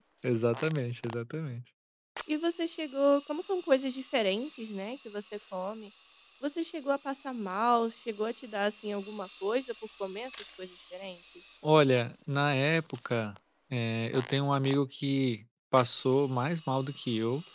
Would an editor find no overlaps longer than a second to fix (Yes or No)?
Yes